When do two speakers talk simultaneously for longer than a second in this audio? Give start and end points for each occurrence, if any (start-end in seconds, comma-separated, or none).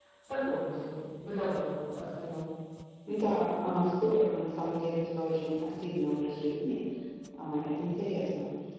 none